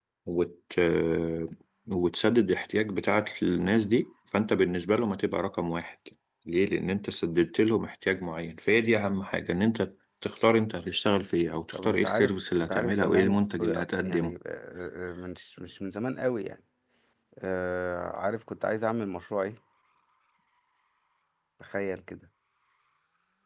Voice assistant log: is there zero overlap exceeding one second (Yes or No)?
No